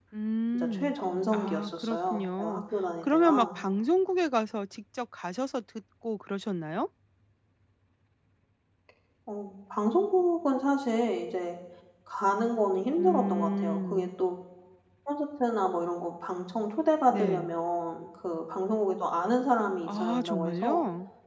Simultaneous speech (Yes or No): Yes